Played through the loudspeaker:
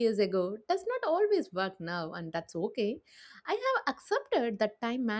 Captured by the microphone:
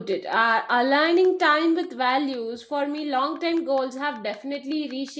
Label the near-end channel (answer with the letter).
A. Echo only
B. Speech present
B